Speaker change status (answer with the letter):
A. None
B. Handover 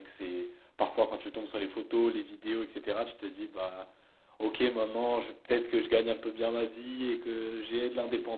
A